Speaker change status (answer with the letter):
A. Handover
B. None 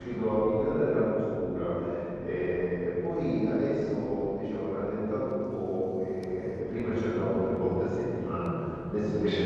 B